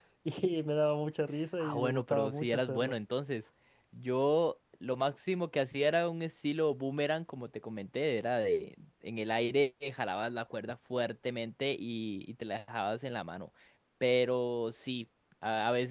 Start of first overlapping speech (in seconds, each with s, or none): 1.6 s